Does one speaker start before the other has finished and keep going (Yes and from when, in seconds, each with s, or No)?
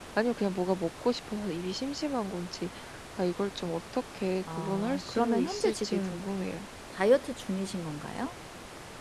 Yes, from 4.4 s